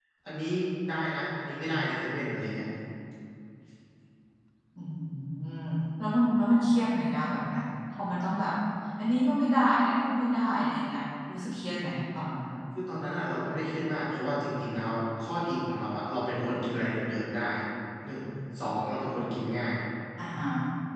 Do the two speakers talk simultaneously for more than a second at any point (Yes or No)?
No